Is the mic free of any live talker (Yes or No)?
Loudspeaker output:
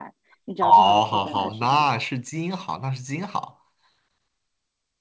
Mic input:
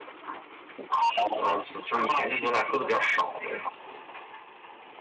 No